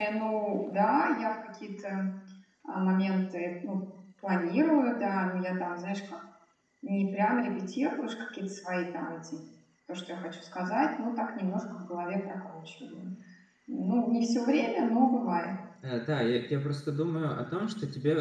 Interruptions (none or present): none